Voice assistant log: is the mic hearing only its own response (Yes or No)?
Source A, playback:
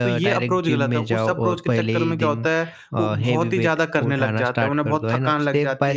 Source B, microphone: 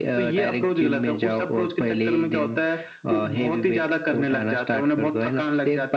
Yes